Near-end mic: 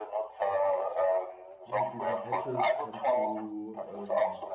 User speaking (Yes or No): Yes